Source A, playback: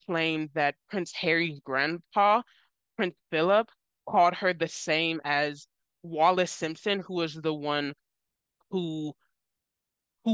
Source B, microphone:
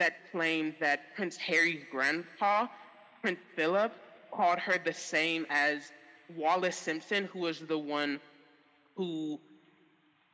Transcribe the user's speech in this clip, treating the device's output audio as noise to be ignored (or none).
none